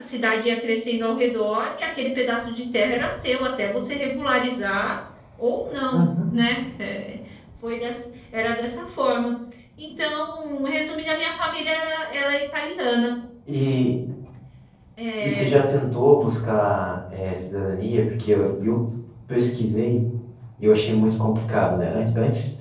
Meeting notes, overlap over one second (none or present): none